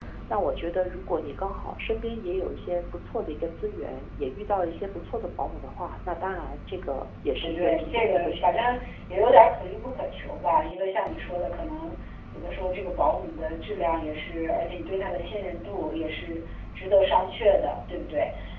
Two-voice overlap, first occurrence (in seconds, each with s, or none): 7.4 s